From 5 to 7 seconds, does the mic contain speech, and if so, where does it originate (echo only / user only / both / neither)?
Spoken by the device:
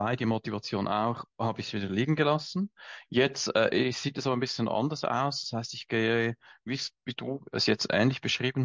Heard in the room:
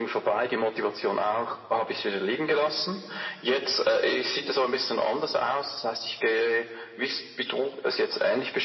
echo only